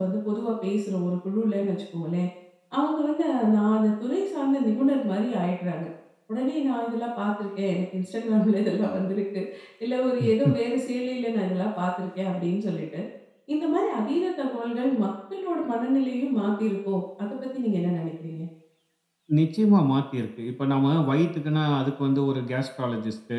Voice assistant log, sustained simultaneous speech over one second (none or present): none